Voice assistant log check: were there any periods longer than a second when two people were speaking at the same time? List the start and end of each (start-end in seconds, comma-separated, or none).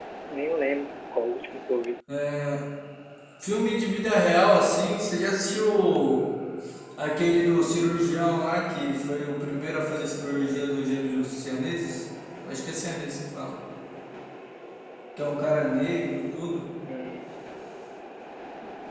none